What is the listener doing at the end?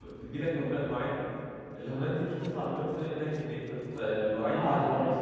taking over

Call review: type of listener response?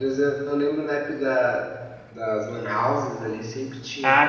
taking over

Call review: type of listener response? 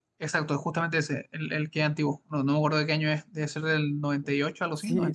taking over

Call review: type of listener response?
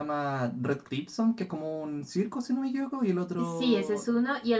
taking over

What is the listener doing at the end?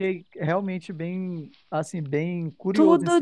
taking over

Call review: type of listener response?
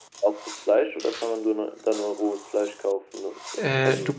taking over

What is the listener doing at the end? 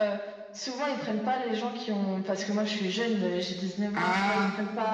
listening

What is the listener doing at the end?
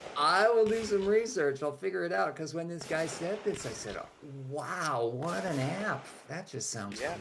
taking over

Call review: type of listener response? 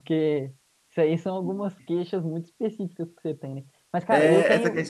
taking over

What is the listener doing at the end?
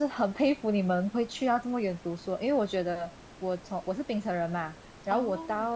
listening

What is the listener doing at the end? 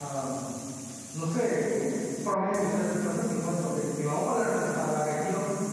listening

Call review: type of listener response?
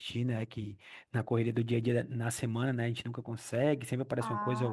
listening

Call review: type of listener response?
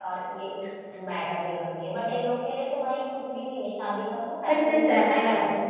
taking over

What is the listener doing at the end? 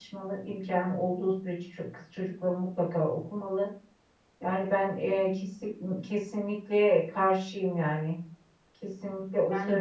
listening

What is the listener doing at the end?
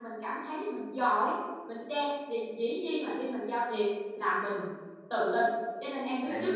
listening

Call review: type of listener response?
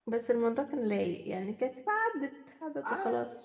taking over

